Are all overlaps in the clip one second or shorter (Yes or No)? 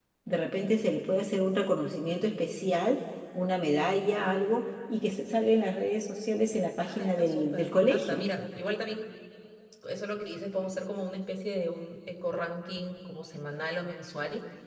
No